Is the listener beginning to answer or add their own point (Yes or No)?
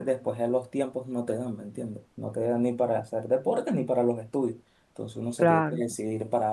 No